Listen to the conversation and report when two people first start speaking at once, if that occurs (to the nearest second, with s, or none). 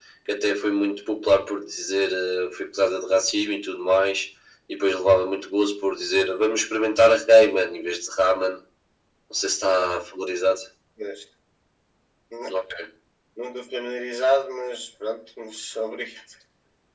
none